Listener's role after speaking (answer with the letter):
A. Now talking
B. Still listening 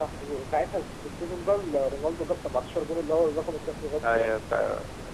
A